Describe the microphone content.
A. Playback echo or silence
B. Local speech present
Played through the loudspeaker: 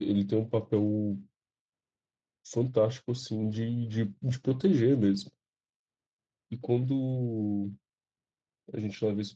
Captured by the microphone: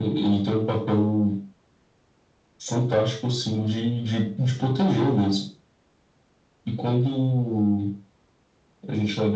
A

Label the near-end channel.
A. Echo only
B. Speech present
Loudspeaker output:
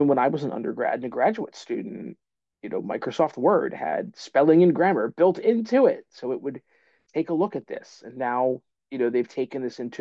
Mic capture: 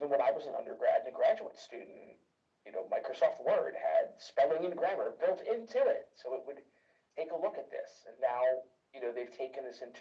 A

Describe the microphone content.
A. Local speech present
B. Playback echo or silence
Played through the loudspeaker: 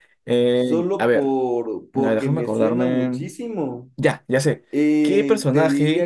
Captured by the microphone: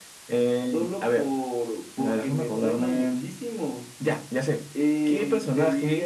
B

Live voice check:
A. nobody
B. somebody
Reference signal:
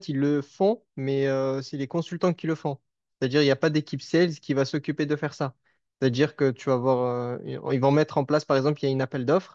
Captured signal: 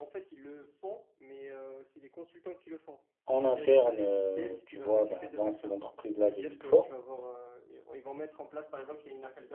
B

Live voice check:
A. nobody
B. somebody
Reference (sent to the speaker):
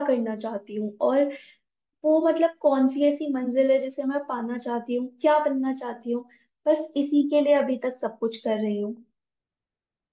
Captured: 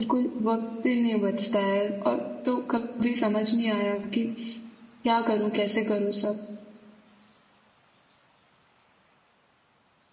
B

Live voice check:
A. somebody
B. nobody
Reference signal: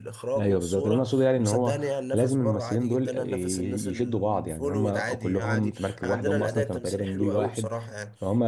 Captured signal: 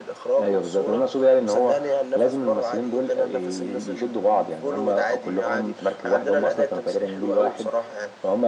B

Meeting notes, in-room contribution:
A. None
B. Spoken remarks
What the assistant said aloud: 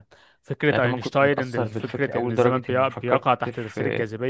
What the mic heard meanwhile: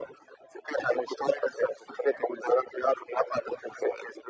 A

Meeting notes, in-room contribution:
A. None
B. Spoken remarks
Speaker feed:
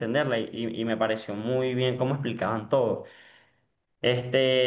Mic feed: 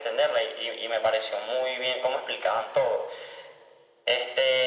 A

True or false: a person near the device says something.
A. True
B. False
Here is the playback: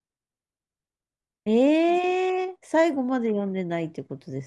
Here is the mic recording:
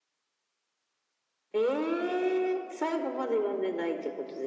B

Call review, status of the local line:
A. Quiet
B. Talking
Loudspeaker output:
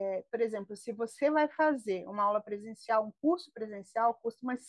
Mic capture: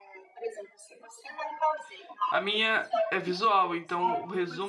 B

